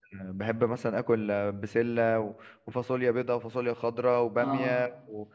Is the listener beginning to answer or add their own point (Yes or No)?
No